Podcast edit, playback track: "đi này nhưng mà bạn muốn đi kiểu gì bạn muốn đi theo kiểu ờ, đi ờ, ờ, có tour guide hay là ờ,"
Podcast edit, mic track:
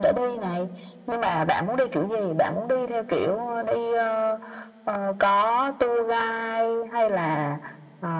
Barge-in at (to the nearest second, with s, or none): none